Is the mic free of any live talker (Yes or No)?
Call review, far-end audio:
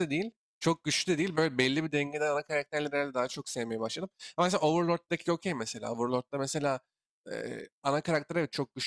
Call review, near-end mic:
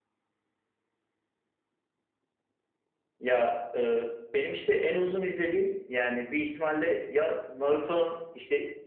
No